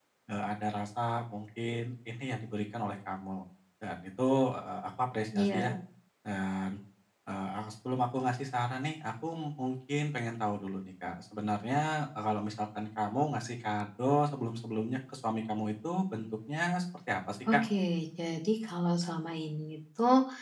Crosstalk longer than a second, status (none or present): none